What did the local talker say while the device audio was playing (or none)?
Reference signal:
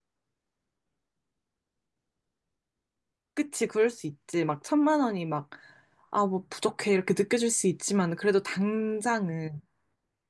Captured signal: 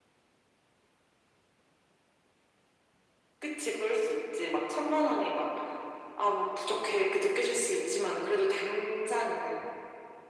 none